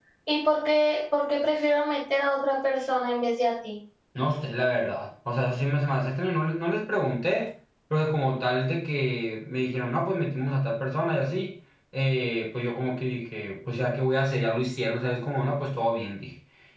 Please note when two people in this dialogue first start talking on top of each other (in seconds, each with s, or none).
none